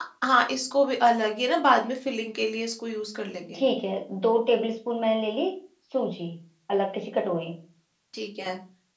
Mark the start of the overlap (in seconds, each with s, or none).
none